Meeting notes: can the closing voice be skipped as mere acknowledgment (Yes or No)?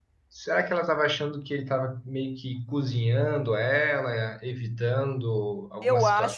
No